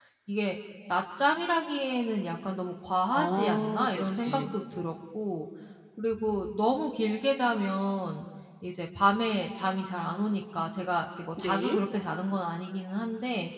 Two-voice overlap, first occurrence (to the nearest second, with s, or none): 3 s